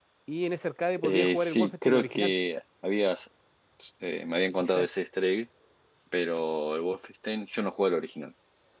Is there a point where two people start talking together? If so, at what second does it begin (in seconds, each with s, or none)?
1.0 s